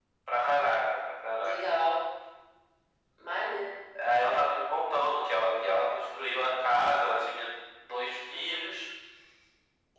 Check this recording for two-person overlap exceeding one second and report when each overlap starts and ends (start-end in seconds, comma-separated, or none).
none